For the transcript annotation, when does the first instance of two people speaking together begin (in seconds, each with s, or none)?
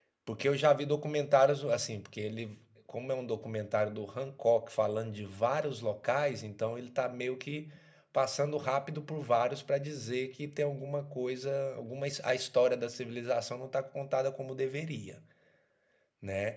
none